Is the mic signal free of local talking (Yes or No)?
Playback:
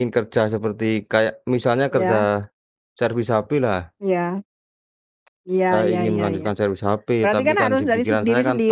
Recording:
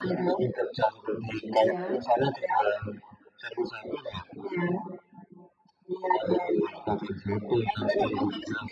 No